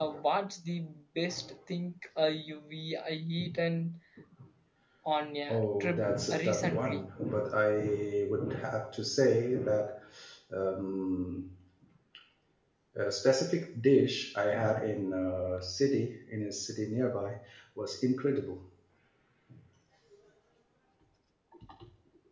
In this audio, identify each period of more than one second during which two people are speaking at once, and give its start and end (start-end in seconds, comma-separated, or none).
5.5-7.0